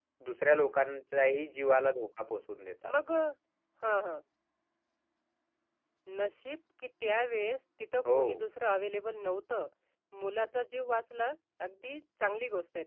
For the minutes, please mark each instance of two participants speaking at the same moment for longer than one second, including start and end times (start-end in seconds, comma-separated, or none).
none